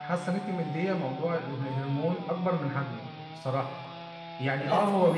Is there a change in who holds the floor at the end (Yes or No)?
No